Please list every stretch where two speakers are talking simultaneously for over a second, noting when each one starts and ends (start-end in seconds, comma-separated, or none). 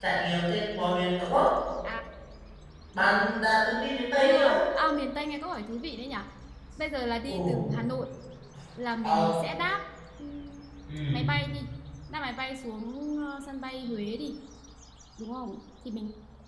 none